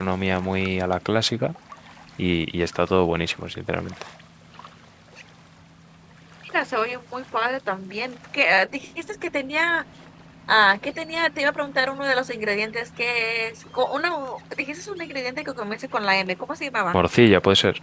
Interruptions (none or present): none